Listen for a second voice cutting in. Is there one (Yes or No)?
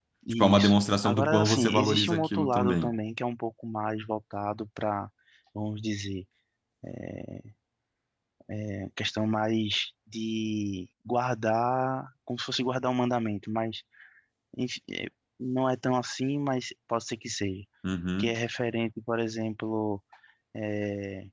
Yes